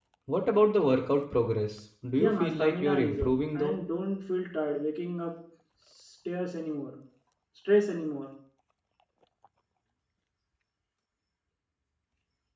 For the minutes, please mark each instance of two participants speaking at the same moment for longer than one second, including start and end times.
2.2-3.8

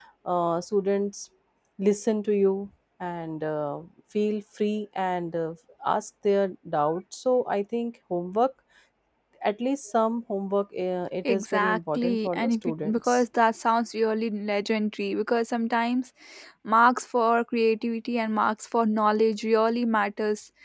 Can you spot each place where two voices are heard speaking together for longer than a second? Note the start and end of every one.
11.3-13.2

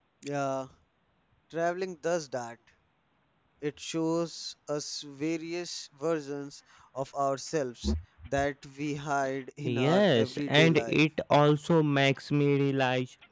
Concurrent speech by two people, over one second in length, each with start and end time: 9.6-11.0

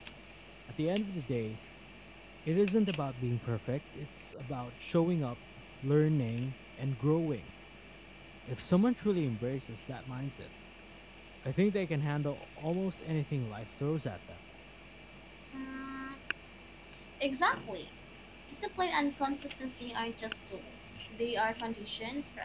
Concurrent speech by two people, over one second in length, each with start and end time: none

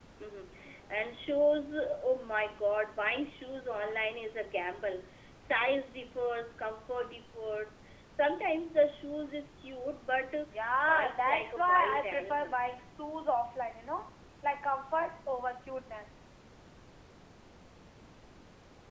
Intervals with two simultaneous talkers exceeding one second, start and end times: 10.9-12.6

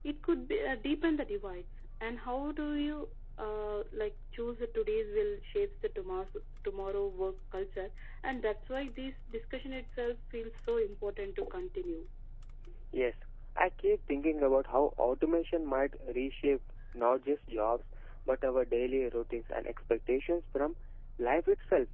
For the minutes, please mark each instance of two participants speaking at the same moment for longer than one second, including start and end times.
none

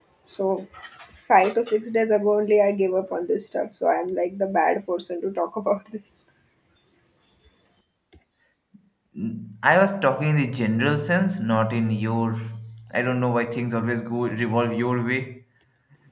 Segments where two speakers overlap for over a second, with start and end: none

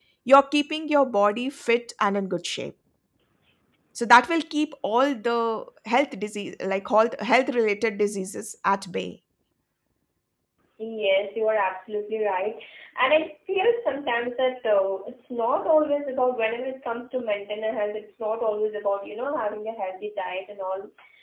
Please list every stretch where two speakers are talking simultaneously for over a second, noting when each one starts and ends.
none

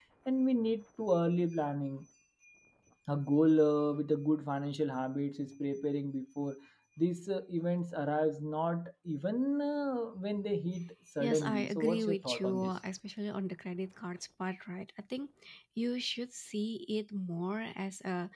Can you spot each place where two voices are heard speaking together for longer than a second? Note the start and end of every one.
11.2-12.7

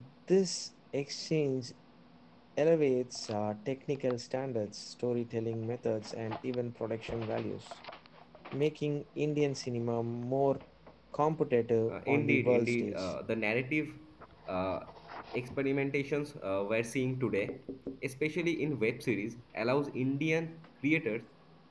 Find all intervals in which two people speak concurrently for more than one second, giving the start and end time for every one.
11.9-13.1

